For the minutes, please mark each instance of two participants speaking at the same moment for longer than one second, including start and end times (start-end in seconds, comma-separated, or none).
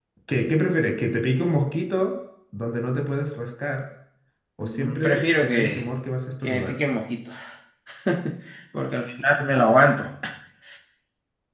4.6-5.8